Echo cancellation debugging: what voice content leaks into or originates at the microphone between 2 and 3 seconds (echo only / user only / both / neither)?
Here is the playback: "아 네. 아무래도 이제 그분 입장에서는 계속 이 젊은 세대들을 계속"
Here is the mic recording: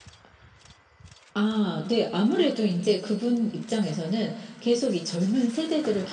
echo only